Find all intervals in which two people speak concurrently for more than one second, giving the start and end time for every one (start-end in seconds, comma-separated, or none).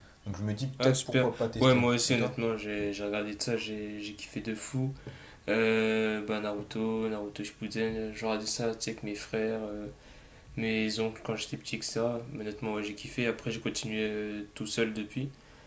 0.8-2.4